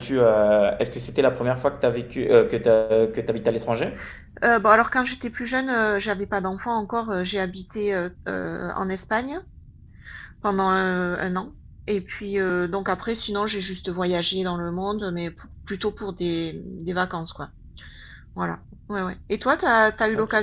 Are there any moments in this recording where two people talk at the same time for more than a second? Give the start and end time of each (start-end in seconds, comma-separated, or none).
none